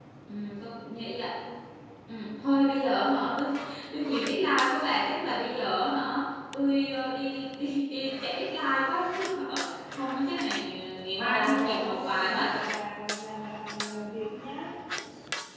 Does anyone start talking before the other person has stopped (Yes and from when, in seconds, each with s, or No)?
Yes, from 11.2 s